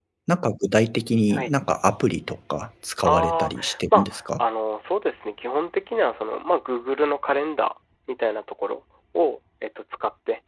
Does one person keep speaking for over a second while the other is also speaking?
Yes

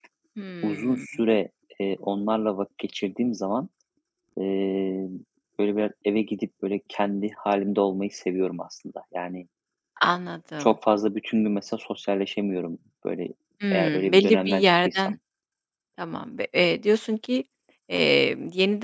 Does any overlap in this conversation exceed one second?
Yes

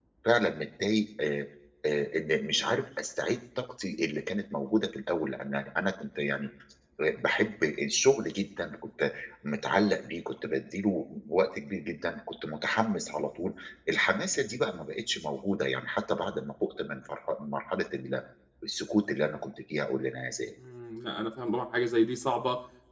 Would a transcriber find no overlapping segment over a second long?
Yes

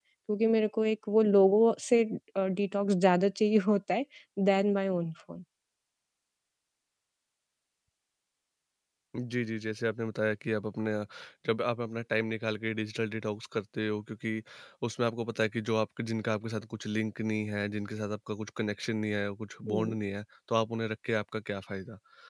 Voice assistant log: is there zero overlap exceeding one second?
Yes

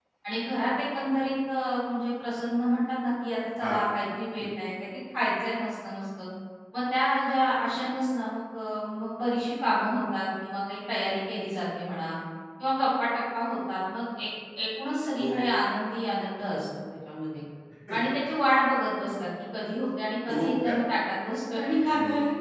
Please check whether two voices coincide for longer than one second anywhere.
No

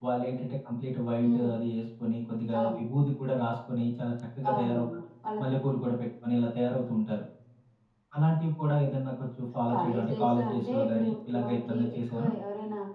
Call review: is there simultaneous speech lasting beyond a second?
Yes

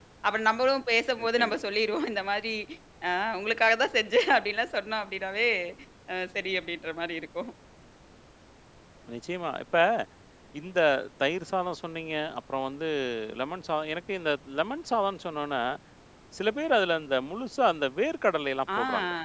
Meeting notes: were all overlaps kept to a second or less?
Yes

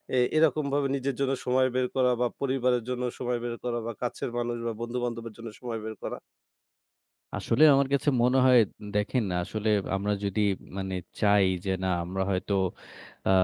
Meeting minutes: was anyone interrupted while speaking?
No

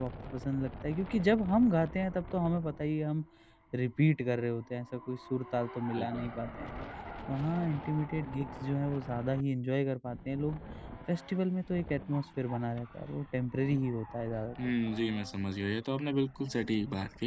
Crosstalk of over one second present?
No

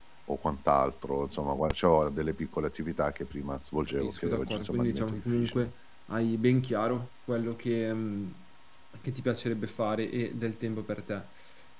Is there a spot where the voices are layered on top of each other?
Yes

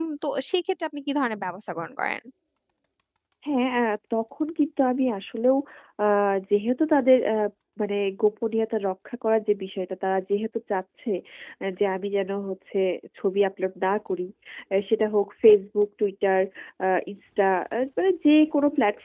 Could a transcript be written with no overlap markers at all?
Yes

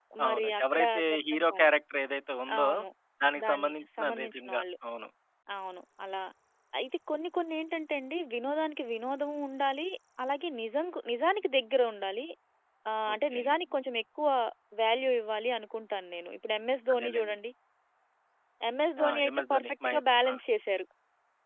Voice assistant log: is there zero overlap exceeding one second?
No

